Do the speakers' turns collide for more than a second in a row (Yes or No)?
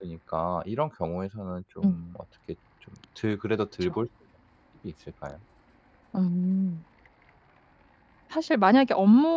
No